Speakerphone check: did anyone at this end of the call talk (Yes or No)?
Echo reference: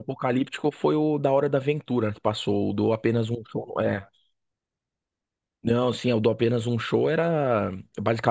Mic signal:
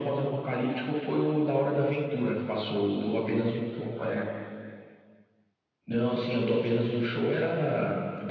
No